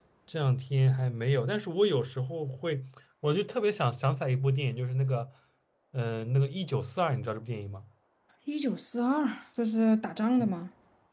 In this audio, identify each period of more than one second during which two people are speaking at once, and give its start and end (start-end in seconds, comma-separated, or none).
none